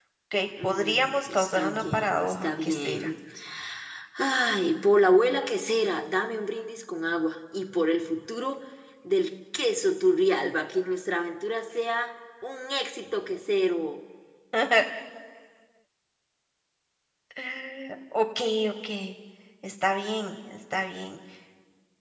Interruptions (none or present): present